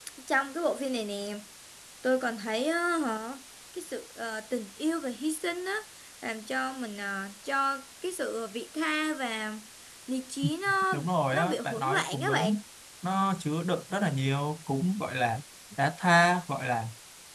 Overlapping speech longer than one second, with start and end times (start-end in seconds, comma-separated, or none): 10.9-12.5